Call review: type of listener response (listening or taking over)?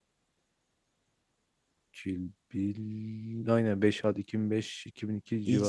taking over